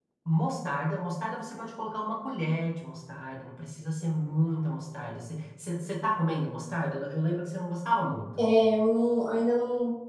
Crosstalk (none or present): none